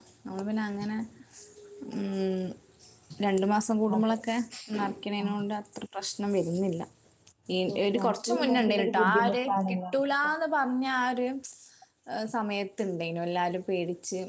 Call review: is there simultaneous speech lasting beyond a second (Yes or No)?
Yes